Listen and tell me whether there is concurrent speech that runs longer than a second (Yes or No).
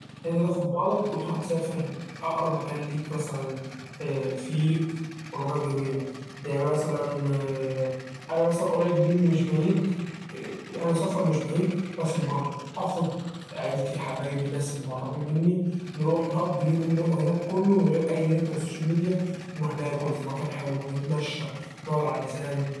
No